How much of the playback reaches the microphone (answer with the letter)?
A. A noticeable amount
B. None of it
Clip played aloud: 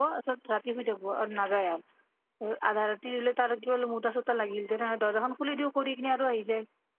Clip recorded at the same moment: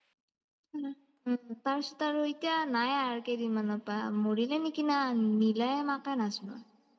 B